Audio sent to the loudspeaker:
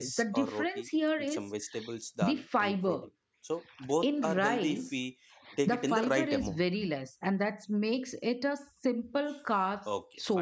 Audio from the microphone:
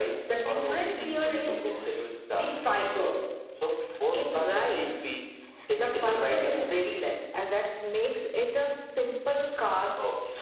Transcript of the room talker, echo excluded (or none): Thank you for listening to us.